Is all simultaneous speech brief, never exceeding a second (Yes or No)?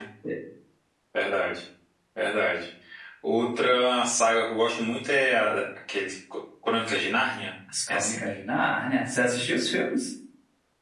Yes